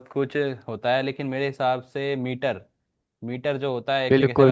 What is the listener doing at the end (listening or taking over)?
taking over